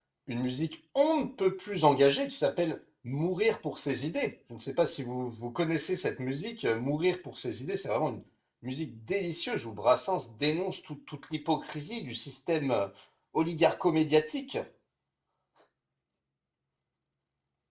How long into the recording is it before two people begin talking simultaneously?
none

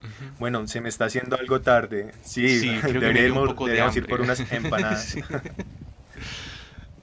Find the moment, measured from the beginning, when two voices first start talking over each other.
2 s

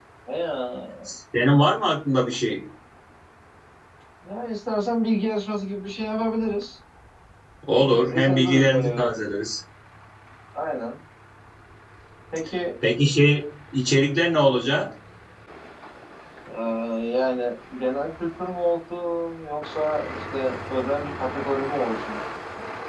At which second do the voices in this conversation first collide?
8 s

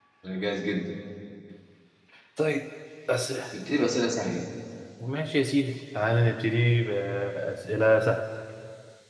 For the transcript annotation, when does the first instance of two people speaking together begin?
none

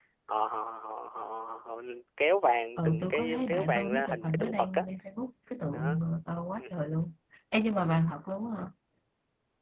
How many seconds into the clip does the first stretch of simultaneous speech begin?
3 s

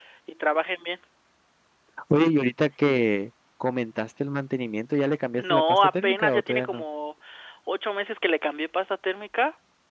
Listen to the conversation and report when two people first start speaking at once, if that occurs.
5 s

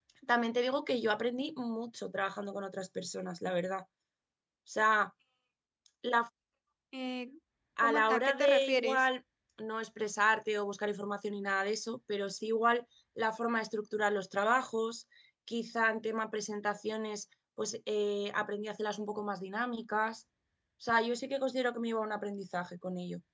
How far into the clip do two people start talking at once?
8 s

